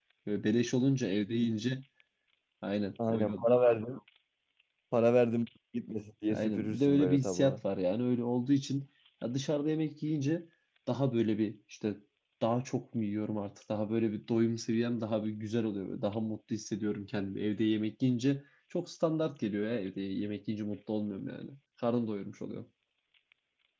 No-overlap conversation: No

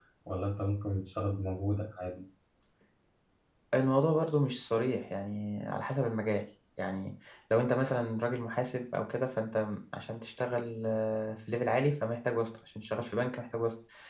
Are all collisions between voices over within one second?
Yes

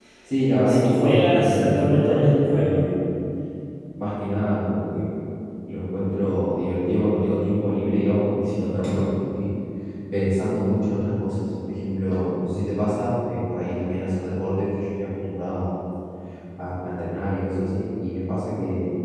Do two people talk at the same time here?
Yes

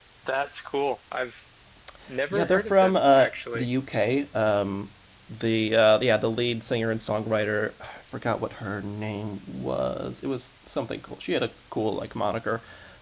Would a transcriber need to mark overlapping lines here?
Yes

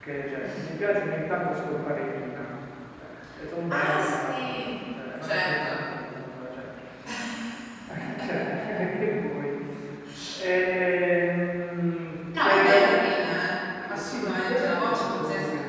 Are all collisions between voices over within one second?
No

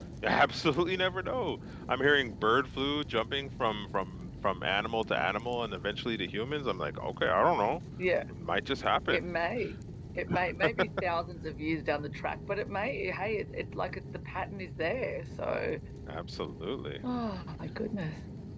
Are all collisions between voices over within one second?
Yes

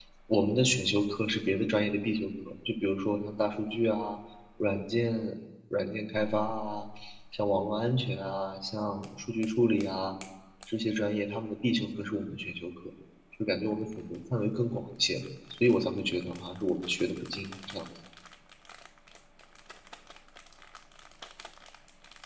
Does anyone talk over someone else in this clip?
No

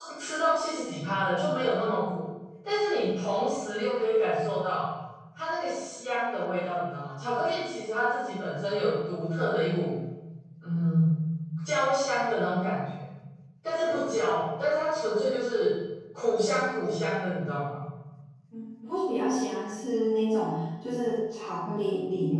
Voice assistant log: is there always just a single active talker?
Yes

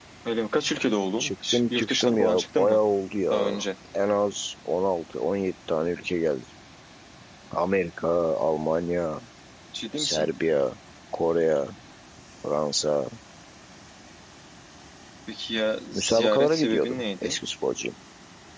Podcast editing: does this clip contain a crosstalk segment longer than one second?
Yes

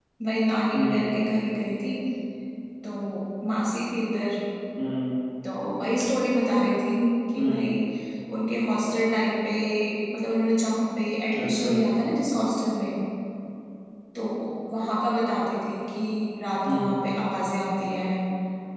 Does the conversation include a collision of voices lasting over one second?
No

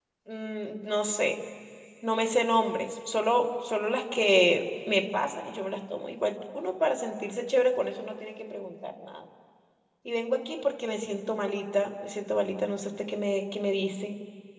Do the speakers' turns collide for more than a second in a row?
No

